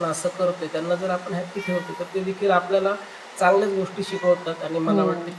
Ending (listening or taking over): listening